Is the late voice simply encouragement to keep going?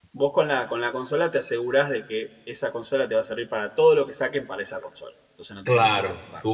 No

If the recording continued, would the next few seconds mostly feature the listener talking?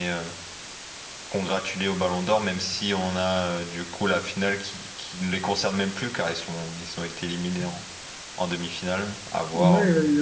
Yes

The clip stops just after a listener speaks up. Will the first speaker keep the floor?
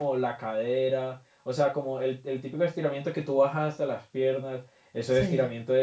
Yes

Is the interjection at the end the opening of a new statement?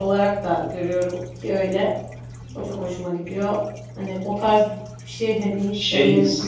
Yes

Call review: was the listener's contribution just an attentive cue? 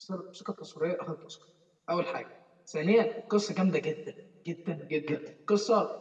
Yes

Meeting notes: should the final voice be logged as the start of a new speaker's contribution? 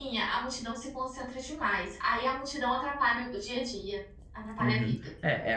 Yes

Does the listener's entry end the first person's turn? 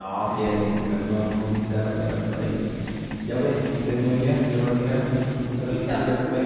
Yes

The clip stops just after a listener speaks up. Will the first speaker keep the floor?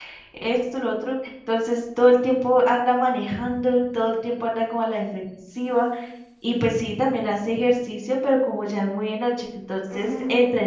Yes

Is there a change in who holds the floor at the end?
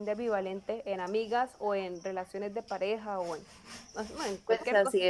Yes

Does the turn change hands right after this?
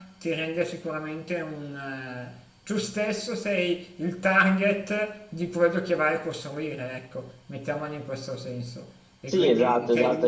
Yes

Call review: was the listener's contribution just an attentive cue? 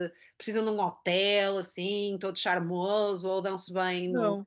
No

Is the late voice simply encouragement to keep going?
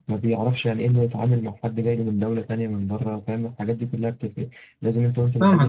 No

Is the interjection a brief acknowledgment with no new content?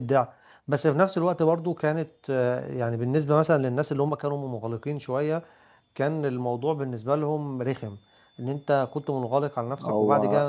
Yes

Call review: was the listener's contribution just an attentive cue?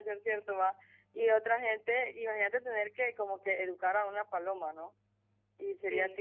Yes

